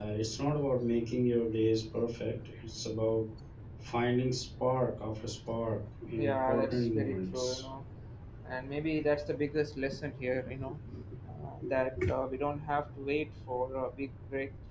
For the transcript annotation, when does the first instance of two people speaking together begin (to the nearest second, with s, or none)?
6 s